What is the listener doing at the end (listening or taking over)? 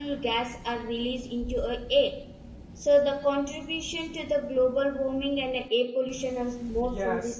taking over